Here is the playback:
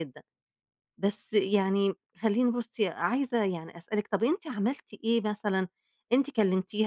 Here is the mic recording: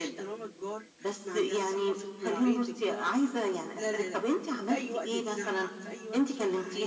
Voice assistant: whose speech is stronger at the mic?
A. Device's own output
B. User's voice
A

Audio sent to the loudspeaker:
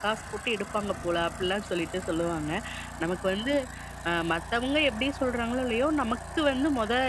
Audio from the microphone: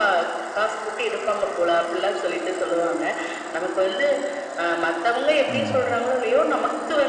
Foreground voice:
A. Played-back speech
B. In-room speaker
A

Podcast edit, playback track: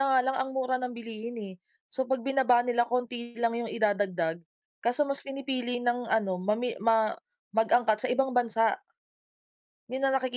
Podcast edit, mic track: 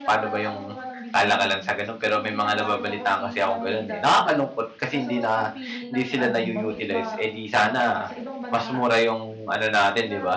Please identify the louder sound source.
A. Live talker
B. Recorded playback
A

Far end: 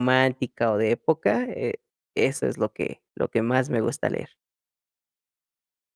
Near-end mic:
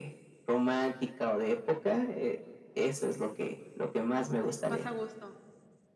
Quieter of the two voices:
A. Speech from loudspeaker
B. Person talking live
B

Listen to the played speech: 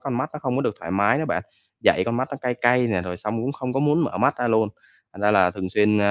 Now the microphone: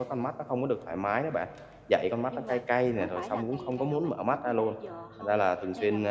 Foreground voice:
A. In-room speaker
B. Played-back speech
B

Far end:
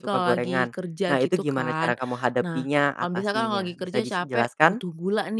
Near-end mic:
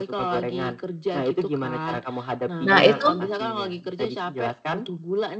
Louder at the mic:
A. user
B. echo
A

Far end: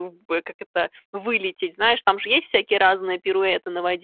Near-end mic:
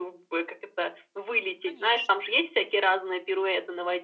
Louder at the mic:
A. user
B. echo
B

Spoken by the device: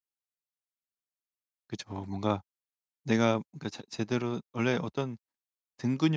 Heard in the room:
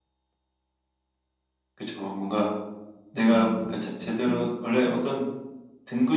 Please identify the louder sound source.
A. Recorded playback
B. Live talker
A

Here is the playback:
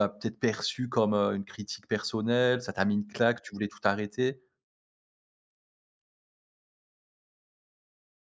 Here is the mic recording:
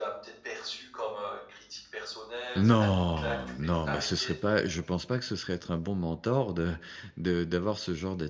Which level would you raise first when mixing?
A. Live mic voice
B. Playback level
B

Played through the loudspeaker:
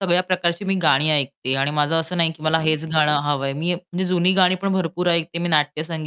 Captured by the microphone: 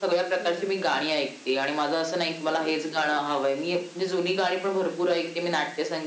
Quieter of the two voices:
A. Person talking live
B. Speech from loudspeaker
A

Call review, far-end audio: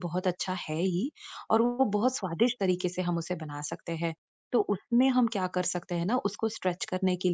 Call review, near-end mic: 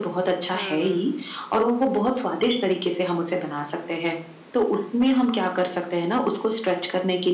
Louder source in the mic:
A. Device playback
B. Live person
A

